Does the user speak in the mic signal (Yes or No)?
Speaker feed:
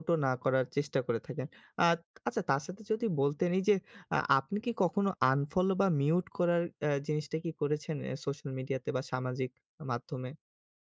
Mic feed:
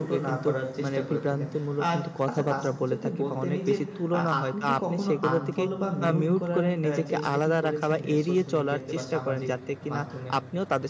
Yes